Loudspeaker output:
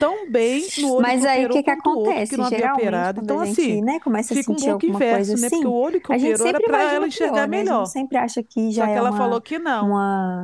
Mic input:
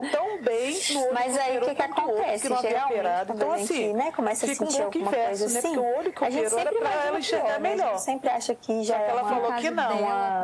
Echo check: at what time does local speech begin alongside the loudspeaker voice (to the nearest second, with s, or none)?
9 s